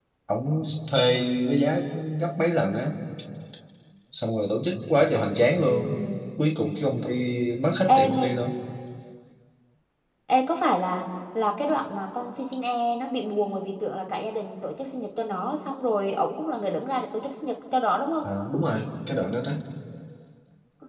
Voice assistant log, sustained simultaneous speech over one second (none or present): none